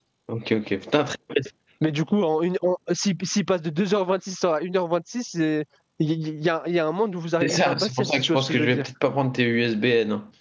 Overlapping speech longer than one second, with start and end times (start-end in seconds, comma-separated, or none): 7.4-8.8